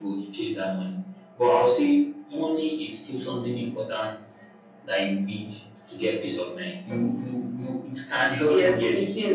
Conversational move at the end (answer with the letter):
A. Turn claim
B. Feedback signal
A